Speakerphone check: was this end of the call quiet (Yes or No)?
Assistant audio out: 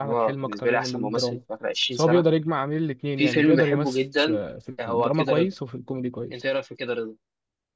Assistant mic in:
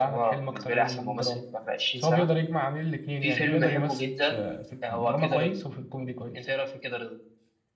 Yes